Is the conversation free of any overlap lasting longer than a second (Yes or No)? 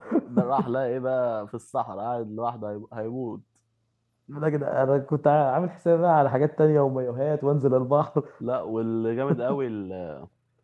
Yes